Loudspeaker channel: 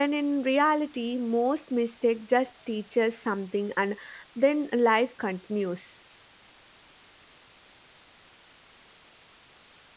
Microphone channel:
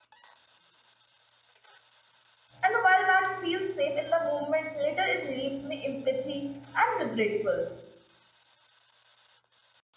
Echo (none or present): none